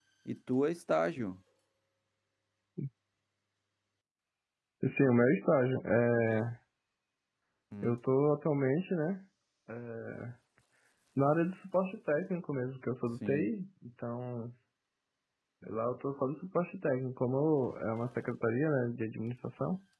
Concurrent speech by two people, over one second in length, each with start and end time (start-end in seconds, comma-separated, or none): none